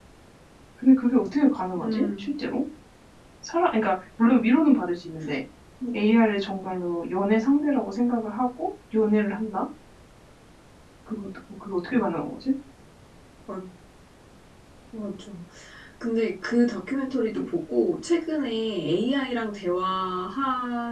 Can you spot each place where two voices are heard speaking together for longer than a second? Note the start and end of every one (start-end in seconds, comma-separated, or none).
none